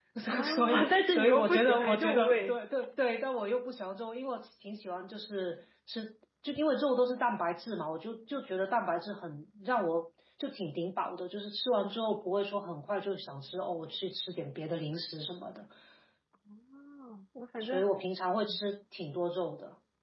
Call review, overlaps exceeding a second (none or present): present